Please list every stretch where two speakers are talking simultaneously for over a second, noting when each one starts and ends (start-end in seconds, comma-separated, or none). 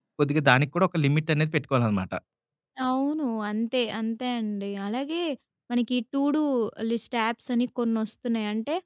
none